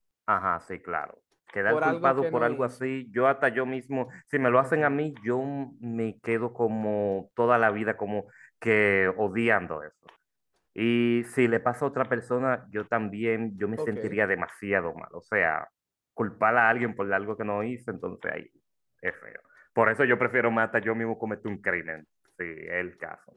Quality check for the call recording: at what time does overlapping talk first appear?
1.7 s

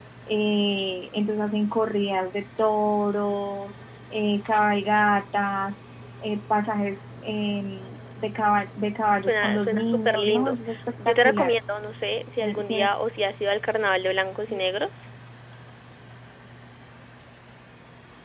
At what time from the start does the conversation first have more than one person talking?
9.3 s

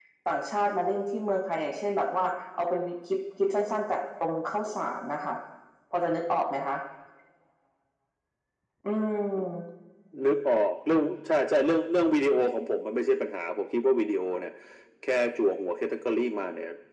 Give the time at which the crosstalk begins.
none

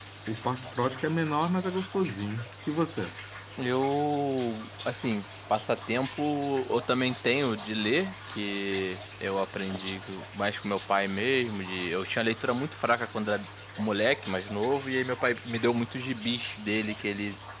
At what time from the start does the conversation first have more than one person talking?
none

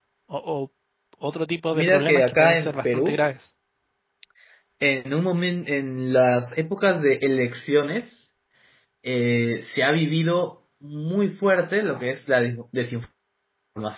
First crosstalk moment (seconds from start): 1.7 s

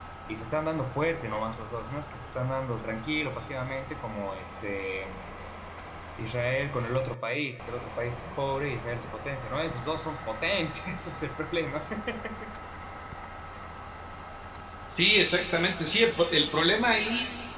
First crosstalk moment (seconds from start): none

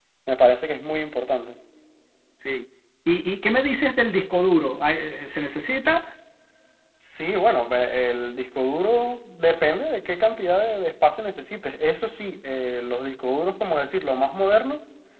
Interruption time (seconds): none

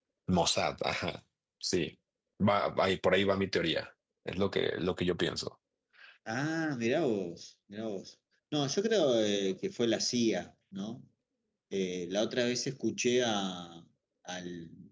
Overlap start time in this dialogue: none

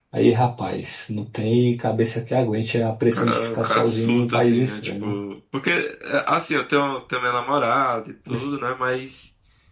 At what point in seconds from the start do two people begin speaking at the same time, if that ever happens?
3.1 s

